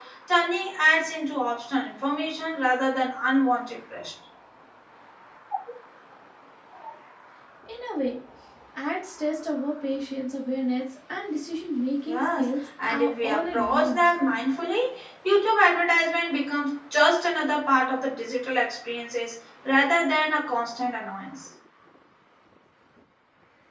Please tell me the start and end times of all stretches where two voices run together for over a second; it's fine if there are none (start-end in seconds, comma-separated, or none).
12.1-14.0